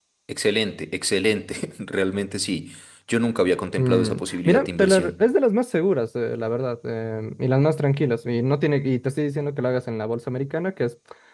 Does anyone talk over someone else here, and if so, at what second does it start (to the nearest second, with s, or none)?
4 s